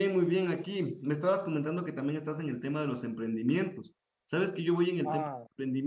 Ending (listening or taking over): listening